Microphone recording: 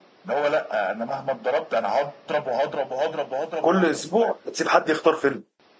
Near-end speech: present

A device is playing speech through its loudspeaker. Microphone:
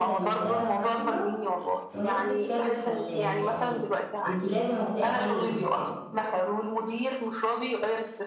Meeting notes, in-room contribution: present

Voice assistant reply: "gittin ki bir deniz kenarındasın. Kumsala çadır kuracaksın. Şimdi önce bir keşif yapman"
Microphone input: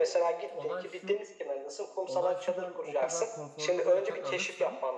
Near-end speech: present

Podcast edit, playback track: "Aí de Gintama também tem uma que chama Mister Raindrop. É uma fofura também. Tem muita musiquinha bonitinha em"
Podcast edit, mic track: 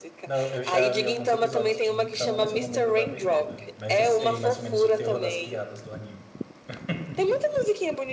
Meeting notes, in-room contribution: present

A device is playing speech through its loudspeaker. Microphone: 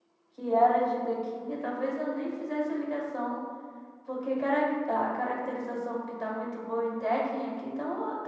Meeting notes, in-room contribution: present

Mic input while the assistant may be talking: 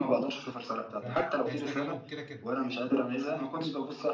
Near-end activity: present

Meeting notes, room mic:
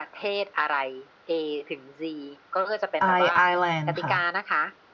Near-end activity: present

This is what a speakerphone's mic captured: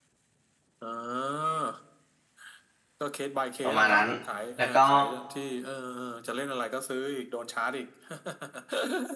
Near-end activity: present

